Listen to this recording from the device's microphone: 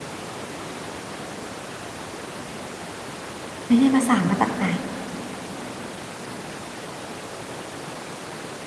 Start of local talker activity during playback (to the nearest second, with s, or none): 4 s